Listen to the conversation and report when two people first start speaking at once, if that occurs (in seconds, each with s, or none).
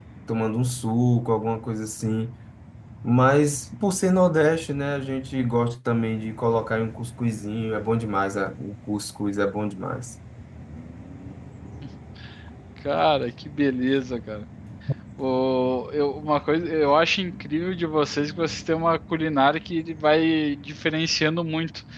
none